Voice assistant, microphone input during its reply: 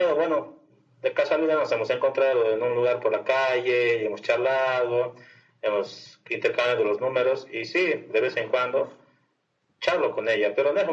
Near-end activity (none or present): none